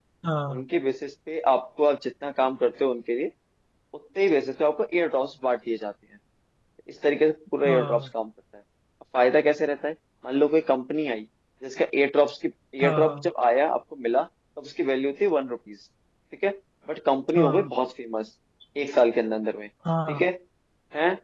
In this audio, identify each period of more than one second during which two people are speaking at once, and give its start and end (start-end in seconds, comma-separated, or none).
none